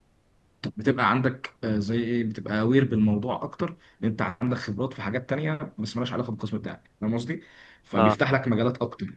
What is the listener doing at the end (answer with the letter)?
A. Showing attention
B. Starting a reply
A